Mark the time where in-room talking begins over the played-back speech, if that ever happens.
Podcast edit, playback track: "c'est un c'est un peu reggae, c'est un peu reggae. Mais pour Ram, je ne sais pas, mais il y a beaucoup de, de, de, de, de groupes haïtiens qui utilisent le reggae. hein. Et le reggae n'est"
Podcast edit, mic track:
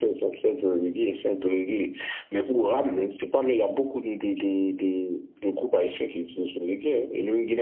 none

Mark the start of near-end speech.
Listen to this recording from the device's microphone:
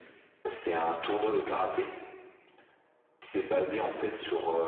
none

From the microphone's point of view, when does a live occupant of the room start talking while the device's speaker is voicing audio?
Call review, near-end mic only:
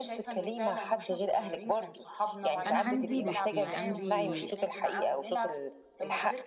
2.7 s

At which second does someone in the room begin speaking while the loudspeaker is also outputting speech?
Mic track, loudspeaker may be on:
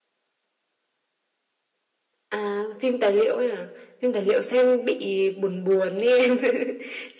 none

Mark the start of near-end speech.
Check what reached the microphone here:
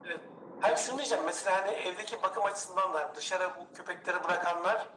none

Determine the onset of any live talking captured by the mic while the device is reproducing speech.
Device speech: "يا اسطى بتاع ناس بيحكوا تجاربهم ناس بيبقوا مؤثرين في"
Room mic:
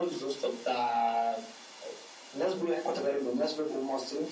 none

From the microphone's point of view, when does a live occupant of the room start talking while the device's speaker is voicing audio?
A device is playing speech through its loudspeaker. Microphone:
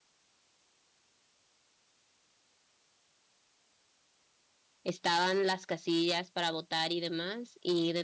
4.8 s

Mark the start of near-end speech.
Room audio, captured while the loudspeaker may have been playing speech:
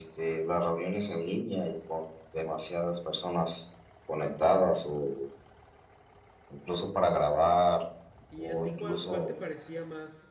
8.3 s

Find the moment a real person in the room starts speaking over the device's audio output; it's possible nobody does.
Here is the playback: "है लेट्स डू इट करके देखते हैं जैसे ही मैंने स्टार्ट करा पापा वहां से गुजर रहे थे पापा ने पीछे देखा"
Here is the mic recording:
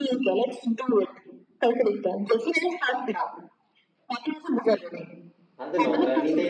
5.6 s

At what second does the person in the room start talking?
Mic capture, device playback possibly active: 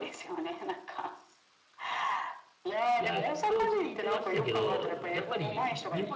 2.9 s

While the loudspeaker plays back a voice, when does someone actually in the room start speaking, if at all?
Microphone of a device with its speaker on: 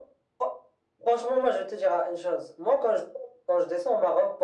none

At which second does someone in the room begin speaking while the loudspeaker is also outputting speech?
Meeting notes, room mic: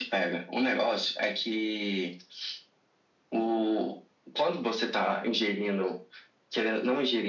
none

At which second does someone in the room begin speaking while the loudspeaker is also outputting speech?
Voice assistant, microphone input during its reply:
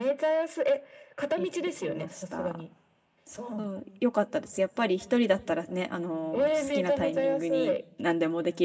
1.4 s

